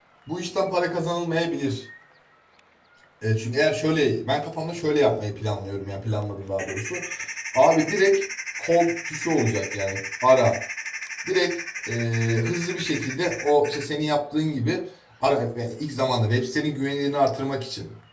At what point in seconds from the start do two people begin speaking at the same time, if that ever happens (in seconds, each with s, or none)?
none